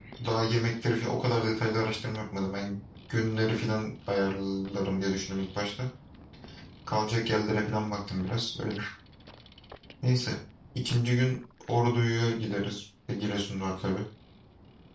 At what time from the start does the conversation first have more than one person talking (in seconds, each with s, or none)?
none